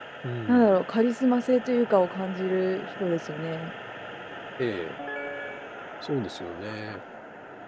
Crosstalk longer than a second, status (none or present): none